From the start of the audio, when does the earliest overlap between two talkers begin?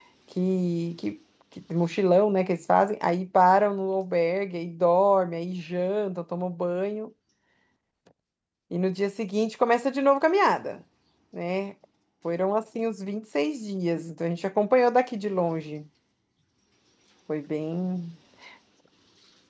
none

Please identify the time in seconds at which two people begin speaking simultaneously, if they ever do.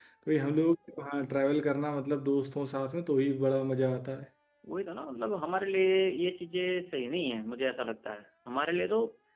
none

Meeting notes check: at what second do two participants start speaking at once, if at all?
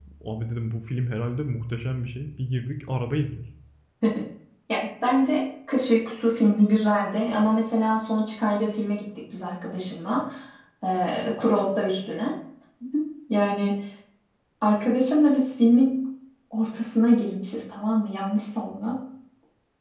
none

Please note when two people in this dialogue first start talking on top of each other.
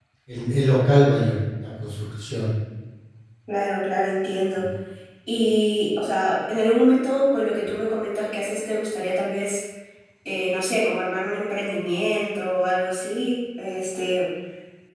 none

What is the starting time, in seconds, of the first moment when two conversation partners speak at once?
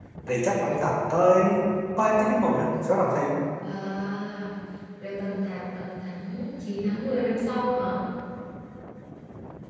none

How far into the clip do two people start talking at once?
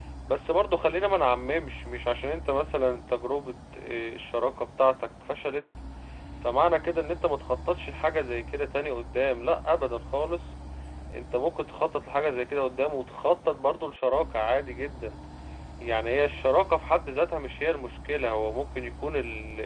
none

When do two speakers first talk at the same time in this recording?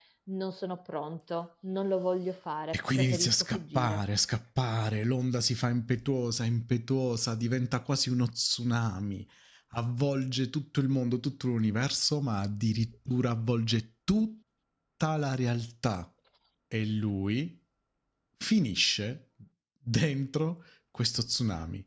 2.7 s

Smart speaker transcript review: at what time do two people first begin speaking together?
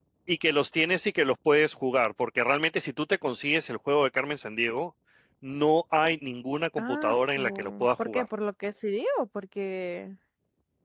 6.8 s

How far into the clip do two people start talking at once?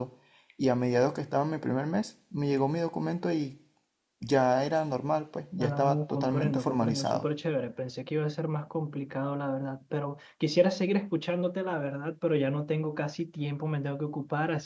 5.6 s

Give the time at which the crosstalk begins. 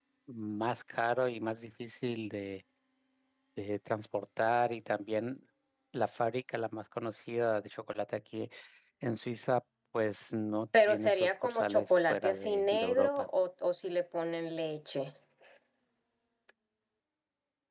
10.7 s

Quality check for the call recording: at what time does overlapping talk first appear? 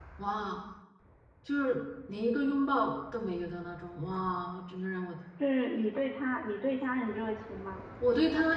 none

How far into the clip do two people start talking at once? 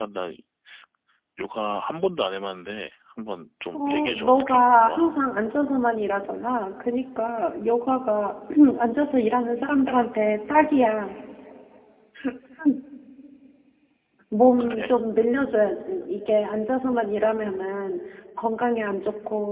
3.7 s

